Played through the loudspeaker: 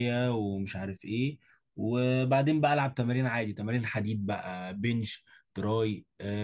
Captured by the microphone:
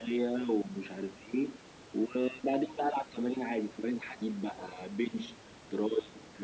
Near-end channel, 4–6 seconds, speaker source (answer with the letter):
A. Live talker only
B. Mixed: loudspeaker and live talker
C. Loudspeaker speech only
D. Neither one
C